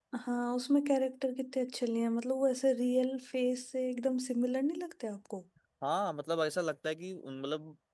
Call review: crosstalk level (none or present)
none